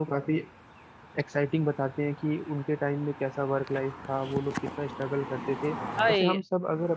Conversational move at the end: listening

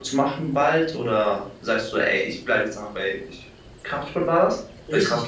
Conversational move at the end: taking over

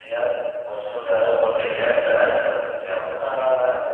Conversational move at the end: taking over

